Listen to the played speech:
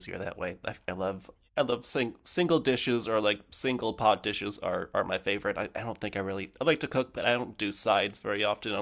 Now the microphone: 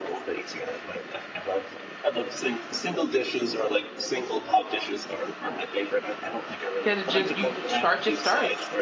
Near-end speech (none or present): present